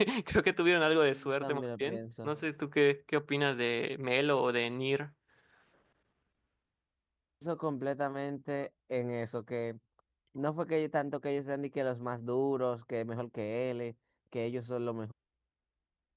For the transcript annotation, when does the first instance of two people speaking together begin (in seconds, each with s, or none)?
1.1 s